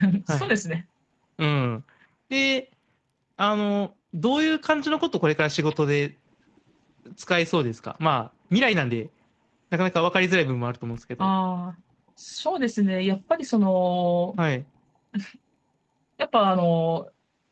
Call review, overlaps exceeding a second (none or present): none